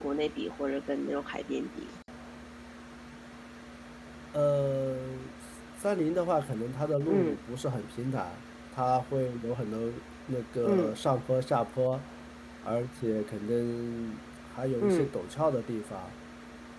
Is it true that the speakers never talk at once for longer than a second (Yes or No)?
Yes